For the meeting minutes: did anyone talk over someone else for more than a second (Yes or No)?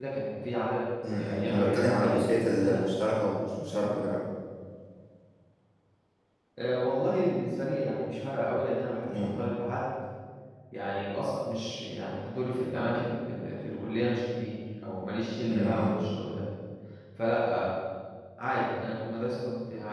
Yes